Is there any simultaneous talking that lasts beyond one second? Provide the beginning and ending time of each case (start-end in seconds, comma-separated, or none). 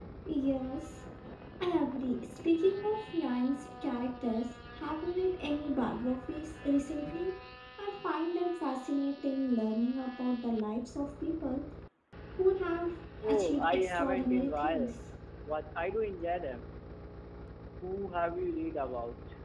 13.2-15.0